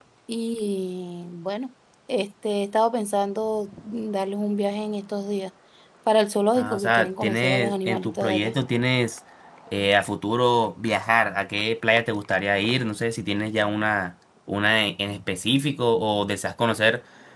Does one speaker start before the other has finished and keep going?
Yes, from 6.6 s

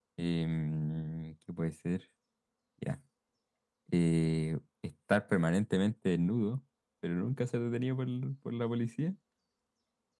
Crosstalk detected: No

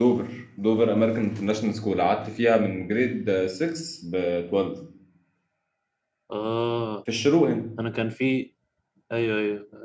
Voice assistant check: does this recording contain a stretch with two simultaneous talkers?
No

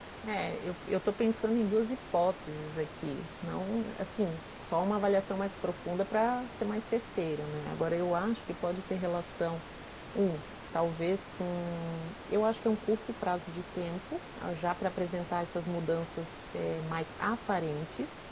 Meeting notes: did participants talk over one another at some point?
No

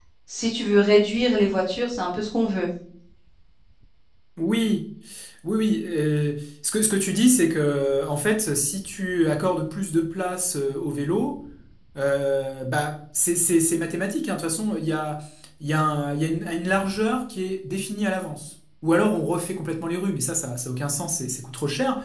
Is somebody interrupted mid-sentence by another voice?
No

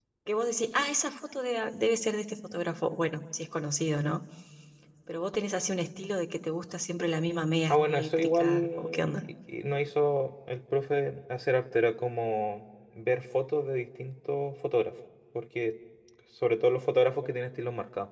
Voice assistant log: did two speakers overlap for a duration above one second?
Yes, from 7.7 s

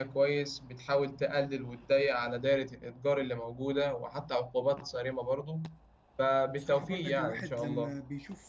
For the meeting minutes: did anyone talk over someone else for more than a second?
Yes, from 6.6 s

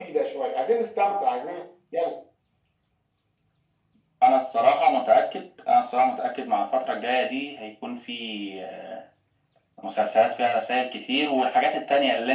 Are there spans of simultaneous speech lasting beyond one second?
No

